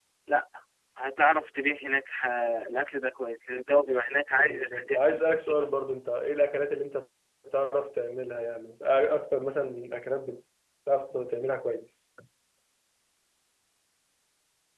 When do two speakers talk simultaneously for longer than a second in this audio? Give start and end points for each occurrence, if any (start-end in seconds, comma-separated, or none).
4.3-5.7